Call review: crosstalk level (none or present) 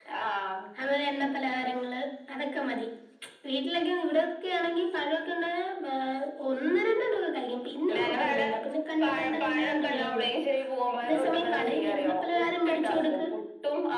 present